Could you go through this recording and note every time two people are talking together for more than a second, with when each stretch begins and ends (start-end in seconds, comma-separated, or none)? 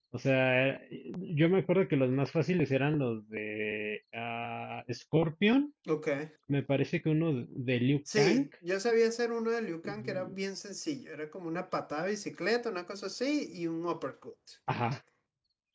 none